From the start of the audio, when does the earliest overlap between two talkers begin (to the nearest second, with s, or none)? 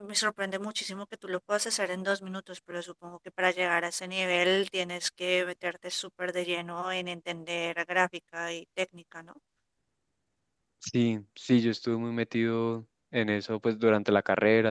none